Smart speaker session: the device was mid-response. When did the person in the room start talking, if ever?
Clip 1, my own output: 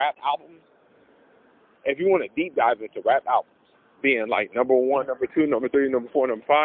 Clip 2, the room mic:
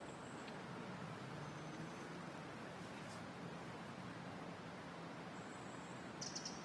none

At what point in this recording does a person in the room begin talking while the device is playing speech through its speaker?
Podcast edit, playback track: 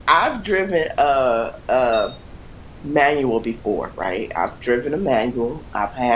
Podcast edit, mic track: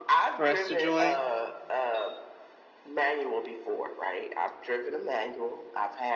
0.4 s

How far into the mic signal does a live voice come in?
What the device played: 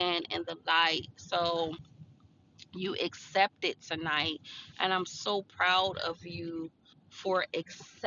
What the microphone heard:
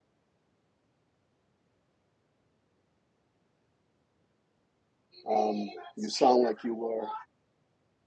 5.3 s

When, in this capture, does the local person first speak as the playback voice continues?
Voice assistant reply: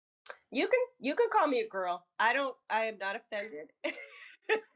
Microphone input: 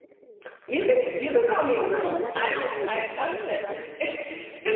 1.7 s

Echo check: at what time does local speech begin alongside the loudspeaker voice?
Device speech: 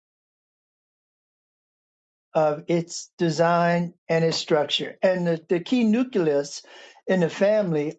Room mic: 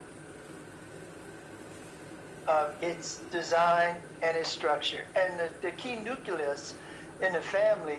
none

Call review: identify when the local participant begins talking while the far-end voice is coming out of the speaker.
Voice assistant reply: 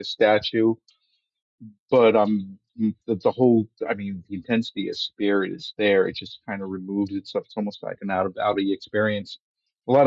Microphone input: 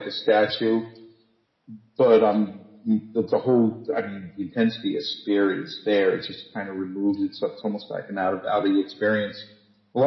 none

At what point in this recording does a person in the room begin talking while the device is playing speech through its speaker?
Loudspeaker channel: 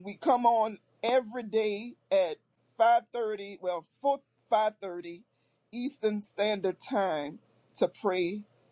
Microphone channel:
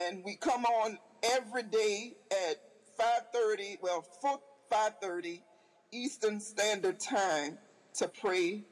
none

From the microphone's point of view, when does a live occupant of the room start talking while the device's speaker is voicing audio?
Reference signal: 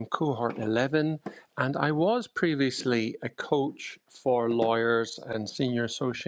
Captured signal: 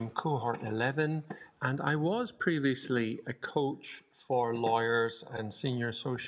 none

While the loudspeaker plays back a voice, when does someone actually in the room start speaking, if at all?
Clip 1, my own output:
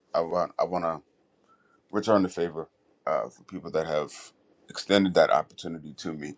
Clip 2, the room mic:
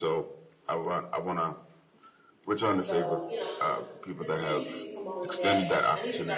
2.8 s

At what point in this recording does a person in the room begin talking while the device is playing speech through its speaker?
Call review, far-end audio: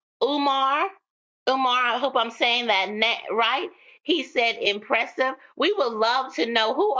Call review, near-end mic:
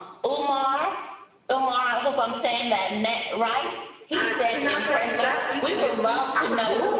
4.1 s

